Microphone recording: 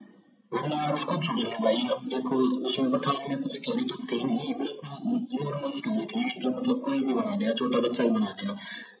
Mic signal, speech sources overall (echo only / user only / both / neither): both